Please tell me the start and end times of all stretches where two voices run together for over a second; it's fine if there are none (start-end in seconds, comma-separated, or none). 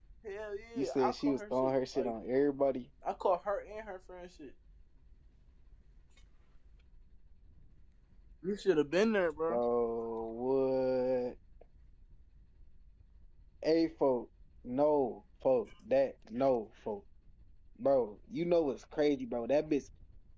0.8-2.1